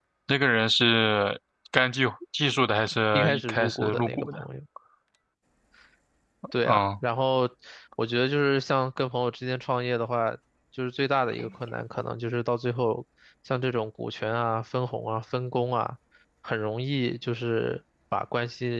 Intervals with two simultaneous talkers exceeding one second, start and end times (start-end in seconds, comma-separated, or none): 3.1-4.4